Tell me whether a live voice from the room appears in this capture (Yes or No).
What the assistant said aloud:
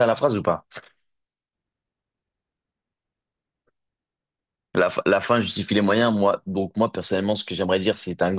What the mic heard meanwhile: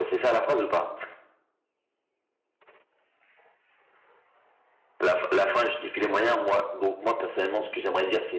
No